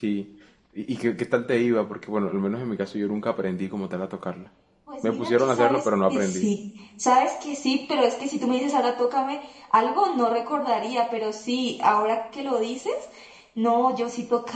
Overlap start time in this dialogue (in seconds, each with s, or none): 5.0 s